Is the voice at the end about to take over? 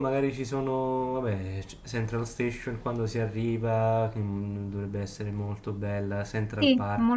Yes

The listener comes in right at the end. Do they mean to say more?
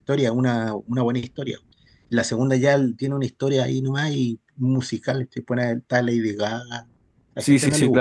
Yes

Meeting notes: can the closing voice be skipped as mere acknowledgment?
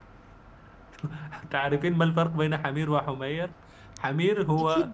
Yes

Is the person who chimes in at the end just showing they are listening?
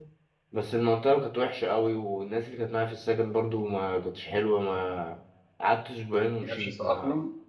Yes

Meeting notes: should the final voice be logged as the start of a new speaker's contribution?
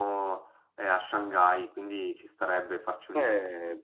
Yes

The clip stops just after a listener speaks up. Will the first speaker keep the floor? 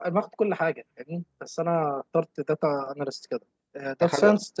Yes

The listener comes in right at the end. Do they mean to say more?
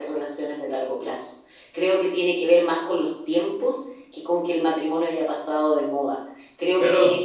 No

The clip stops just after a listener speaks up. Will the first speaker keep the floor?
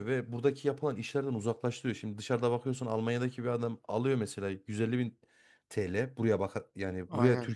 Yes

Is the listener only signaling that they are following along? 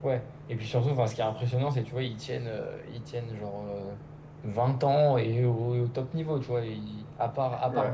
Yes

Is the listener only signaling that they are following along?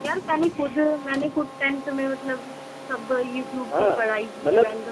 No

